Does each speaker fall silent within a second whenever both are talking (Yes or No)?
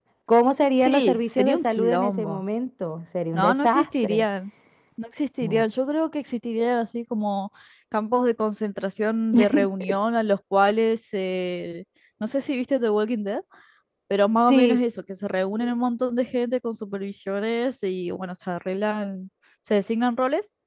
No